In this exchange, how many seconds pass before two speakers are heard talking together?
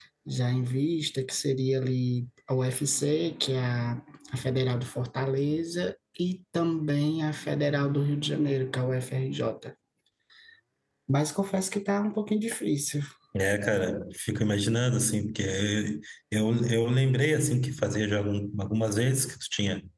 none

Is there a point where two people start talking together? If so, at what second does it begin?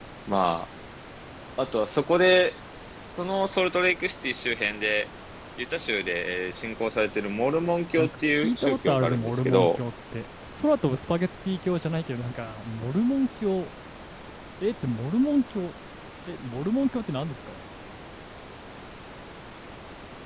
8.0 s

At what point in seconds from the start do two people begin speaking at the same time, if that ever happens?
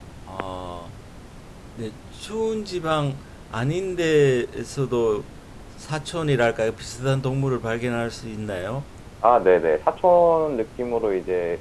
none

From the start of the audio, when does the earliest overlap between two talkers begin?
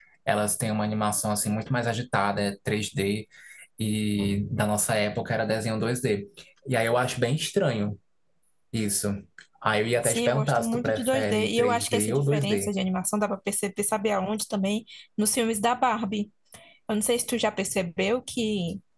10.0 s

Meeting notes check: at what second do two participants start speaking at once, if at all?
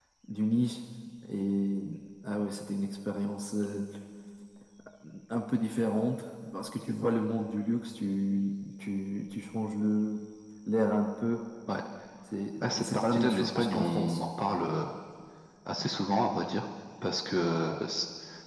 12.6 s

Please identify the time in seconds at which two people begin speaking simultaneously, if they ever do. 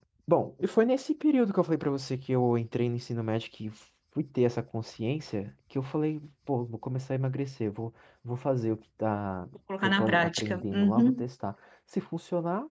9.8 s

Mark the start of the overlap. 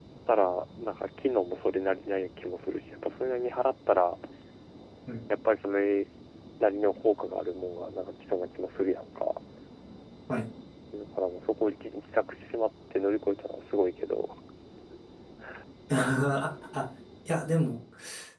none

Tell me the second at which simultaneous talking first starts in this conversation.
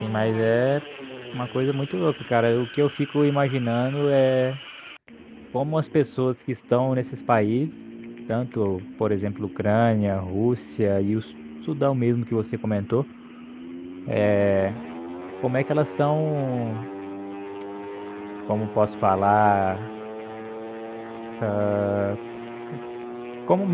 none

